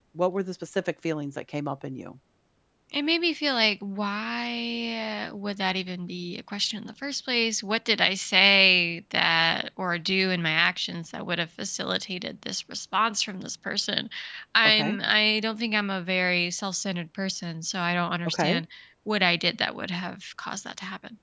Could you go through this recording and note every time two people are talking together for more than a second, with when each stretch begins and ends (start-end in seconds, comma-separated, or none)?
none